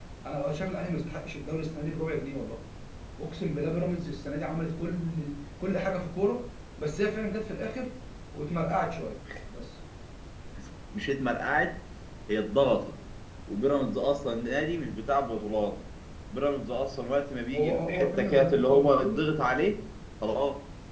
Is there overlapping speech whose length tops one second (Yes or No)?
Yes